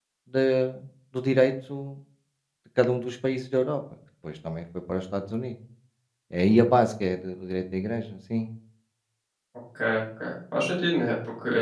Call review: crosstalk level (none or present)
none